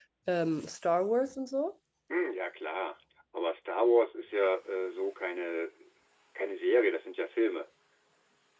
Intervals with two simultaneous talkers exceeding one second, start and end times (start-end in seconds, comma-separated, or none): none